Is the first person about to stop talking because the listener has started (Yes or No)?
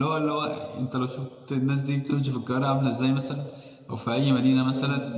No